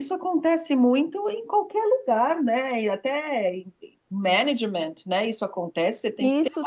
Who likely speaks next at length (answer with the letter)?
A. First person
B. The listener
B